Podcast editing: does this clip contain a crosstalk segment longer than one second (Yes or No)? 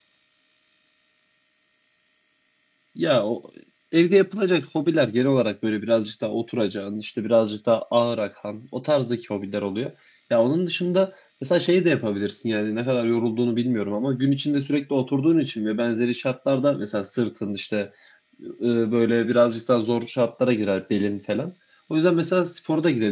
No